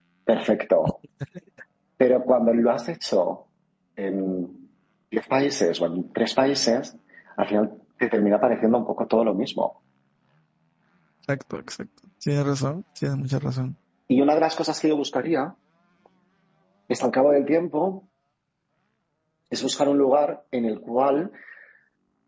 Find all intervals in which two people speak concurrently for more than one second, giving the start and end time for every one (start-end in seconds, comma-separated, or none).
none